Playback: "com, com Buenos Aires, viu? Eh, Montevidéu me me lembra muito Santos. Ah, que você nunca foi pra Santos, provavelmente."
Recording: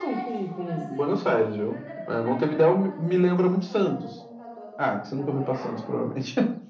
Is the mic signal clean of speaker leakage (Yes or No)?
No